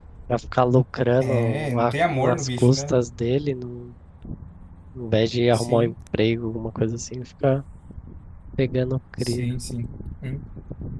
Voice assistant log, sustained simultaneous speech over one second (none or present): present